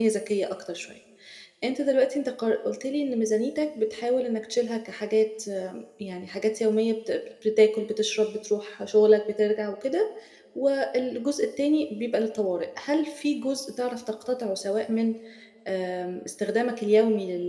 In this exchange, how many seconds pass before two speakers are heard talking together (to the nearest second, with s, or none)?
none